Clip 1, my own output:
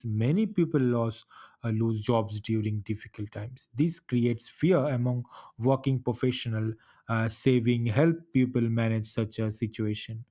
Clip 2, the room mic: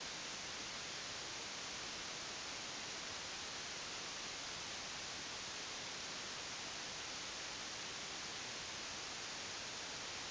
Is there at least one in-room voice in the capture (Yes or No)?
No